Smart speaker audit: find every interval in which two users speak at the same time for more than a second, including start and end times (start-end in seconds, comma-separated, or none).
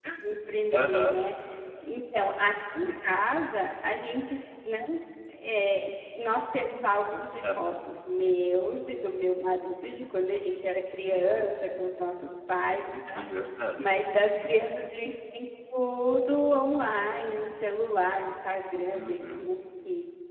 none